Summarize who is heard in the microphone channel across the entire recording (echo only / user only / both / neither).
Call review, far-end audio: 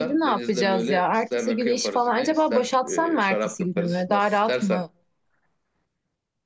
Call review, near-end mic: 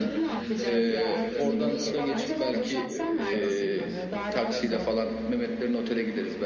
both